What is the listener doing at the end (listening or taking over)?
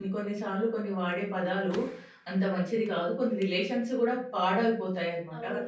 taking over